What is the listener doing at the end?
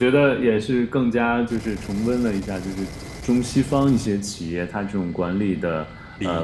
listening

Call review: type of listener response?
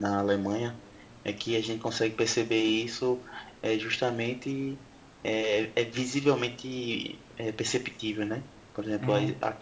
listening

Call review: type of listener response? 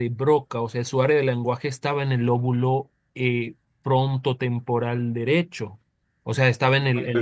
listening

